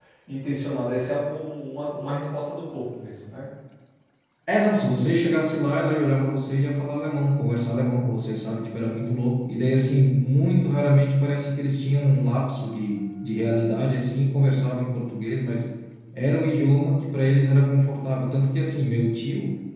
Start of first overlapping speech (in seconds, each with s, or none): none